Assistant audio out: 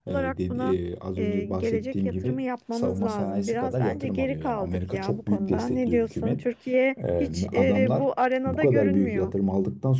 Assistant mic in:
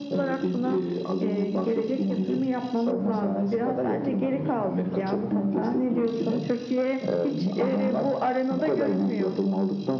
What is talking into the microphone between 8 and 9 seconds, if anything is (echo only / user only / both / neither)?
echo only